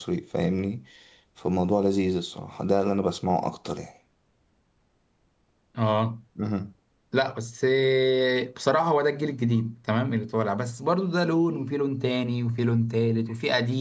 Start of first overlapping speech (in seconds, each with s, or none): none